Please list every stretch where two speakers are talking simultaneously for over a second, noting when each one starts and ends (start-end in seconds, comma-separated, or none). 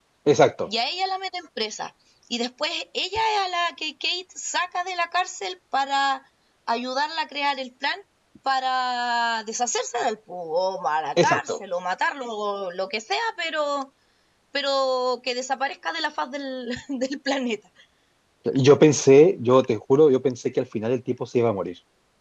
none